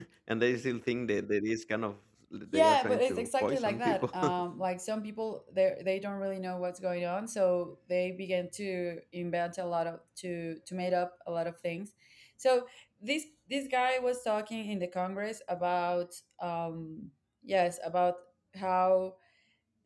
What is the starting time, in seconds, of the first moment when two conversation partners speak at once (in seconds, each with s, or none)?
2.5 s